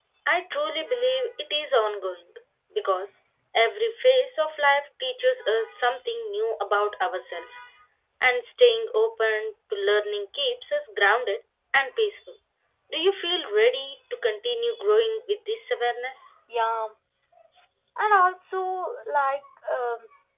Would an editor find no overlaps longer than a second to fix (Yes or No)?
Yes